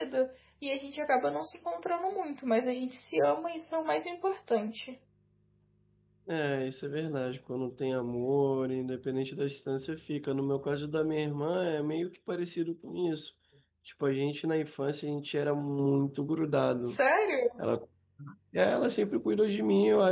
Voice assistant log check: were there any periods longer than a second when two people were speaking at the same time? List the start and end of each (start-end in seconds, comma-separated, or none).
none